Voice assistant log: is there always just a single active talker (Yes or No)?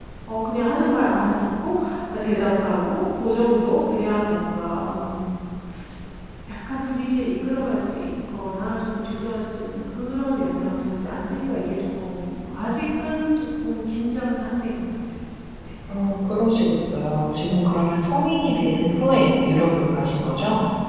Yes